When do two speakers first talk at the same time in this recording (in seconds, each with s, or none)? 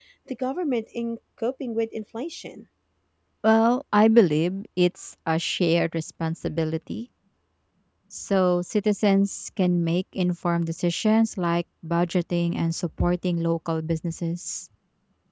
none